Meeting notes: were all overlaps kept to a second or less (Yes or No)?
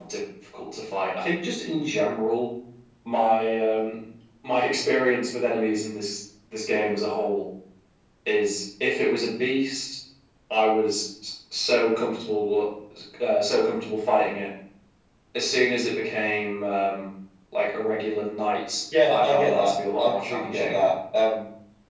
No